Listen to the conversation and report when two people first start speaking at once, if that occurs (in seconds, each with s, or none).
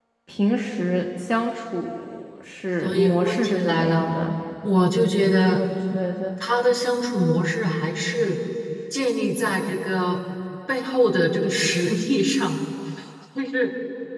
2.8 s